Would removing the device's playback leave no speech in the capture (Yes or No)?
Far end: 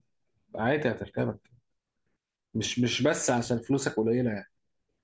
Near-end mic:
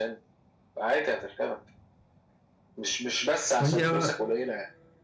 No